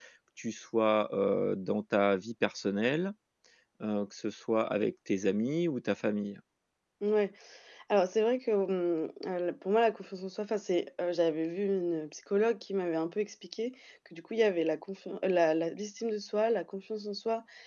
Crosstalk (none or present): none